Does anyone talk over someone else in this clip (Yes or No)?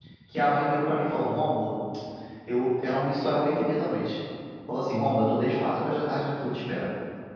No